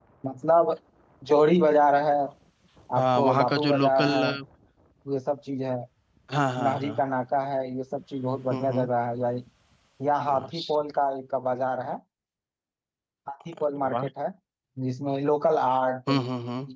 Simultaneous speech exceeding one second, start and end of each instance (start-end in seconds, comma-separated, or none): 3.0-4.2